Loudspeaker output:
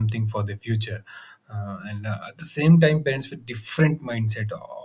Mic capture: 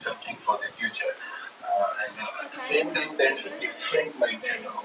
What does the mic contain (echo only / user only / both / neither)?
both